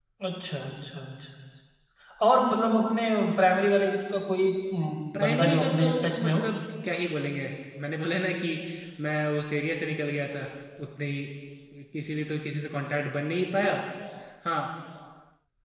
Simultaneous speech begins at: 5.1 s

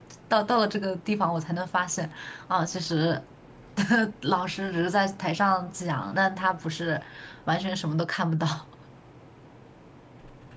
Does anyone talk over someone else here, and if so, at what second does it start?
none

